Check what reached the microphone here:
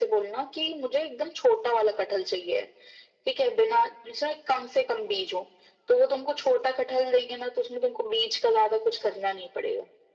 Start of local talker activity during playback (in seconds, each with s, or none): none